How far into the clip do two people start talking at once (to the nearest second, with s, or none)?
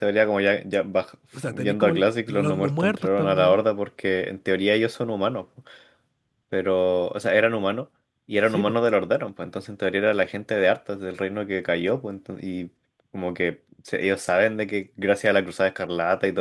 2 s